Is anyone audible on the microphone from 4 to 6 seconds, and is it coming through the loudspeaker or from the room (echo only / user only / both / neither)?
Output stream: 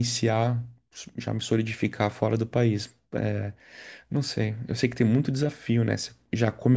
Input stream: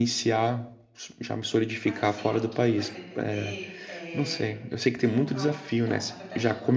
both